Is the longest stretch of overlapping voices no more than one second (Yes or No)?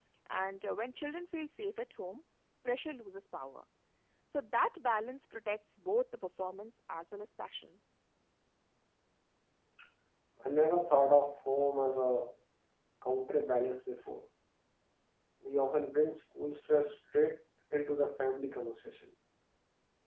Yes